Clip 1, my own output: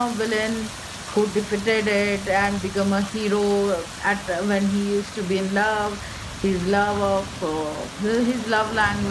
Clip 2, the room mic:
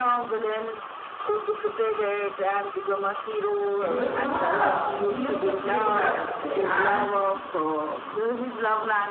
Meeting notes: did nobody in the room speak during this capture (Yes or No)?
No